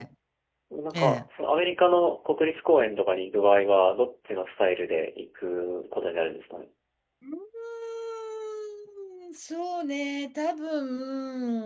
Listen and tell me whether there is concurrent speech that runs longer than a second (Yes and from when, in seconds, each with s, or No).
No